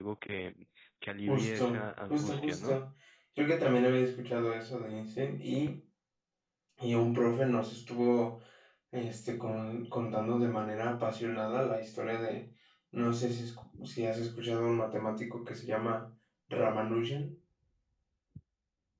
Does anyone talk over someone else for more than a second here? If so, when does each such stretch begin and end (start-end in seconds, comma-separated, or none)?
1.3-2.8